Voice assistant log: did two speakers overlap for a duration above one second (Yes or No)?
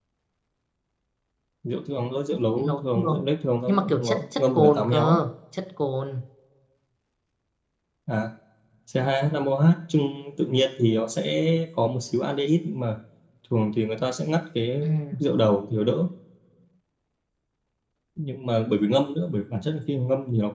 Yes